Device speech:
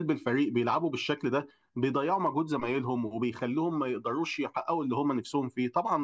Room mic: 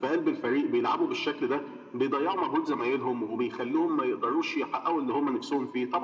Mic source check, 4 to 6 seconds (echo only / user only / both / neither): echo only